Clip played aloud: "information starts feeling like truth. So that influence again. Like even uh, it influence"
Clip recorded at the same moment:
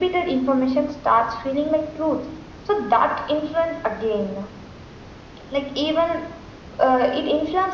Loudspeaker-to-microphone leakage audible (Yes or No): Yes